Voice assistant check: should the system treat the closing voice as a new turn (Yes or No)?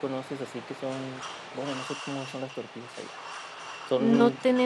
Yes